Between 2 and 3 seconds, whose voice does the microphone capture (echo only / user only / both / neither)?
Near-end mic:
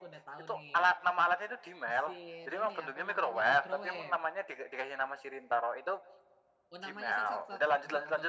both